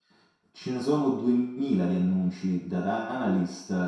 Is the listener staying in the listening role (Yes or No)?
Yes